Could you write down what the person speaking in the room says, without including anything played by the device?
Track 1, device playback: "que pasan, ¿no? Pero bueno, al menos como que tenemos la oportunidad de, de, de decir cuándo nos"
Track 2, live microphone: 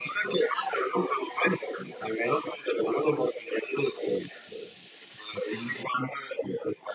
none

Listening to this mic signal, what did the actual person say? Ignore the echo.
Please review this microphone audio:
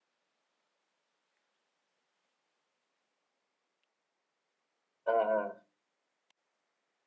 à, à,

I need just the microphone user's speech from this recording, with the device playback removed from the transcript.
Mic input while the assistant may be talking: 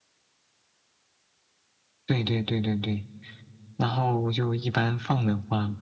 none

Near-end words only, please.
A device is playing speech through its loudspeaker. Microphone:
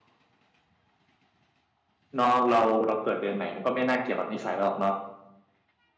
เนาะเราเราเกิดเดือนไหนมันก็ไม่น่าเกี่ยวกับนิสัยเราหรอกเนาะ

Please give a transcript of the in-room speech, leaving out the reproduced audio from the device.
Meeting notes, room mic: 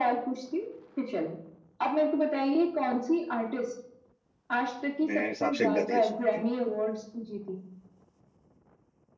मेरे हिसाब से गधे सुनते हैं

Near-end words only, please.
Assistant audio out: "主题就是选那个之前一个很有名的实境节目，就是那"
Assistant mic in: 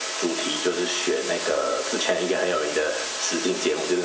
none

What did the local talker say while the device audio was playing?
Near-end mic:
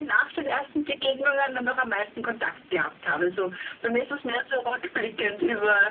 none

